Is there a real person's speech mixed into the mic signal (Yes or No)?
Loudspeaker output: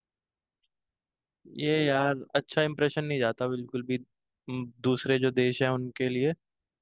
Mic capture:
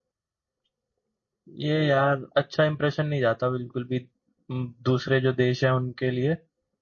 No